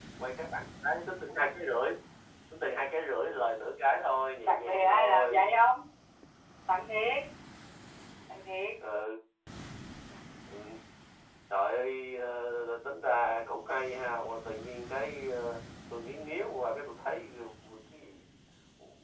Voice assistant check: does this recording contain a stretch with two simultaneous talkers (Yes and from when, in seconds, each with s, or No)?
Yes, from 4.3 s